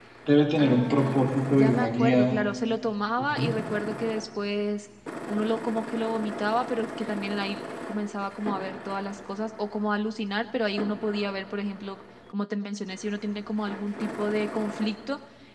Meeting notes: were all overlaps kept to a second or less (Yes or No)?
No